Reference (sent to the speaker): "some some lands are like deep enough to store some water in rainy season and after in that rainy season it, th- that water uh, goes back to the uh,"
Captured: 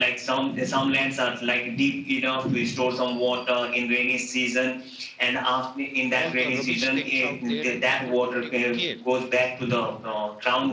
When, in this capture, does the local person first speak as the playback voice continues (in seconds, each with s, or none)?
6.1 s